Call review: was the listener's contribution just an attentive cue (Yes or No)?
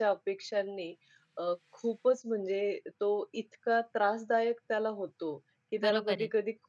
Yes